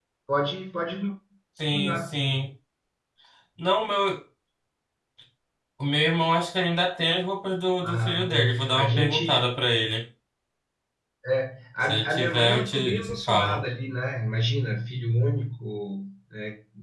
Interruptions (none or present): present